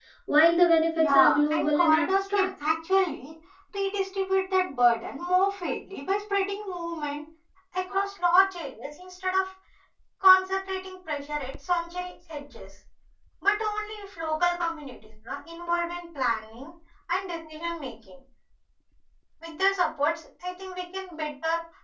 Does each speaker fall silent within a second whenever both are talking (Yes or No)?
No